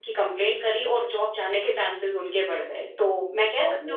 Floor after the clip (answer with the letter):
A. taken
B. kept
A